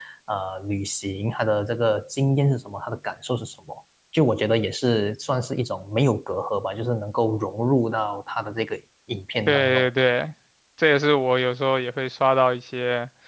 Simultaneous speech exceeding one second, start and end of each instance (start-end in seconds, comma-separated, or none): none